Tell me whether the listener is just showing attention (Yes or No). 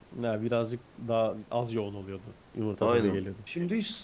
No